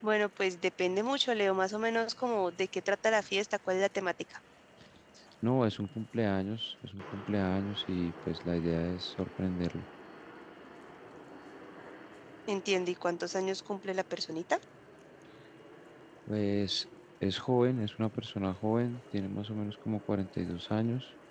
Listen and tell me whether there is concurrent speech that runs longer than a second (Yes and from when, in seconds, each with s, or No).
No